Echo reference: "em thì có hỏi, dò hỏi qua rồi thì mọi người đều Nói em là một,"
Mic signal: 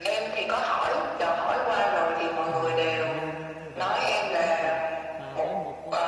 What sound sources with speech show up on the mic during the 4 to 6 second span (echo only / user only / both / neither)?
both